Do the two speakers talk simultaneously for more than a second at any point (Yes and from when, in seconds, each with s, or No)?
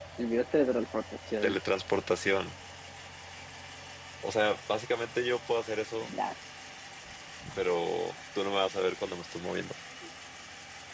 No